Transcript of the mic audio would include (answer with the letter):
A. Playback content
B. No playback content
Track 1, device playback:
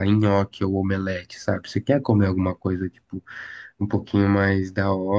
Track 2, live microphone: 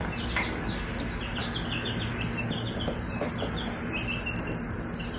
B